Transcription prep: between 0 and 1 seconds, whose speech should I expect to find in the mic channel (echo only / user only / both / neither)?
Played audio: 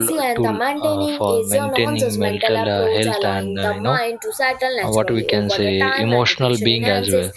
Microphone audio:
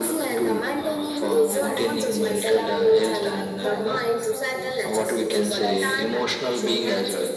echo only